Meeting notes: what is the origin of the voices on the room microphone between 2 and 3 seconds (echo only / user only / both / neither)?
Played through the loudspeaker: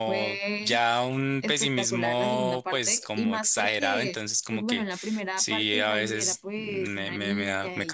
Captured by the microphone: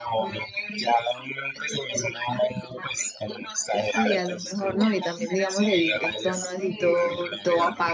echo only